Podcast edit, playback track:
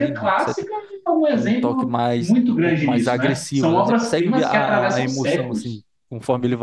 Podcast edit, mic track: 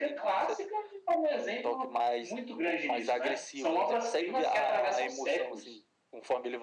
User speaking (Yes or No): No